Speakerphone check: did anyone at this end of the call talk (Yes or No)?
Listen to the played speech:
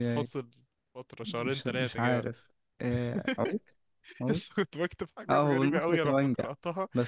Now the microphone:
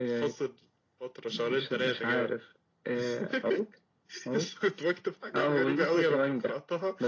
No